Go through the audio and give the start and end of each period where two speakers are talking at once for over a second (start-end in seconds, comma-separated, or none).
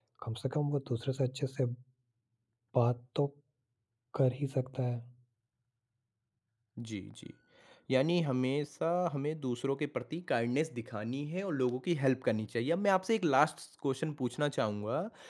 none